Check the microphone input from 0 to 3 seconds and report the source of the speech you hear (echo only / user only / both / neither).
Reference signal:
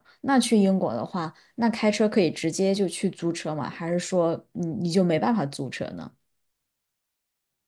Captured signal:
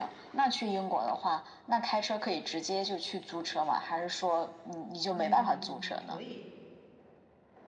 echo only